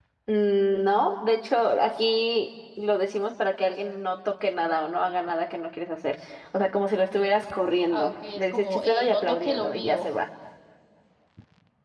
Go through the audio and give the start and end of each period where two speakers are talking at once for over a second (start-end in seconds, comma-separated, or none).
7.9-10.1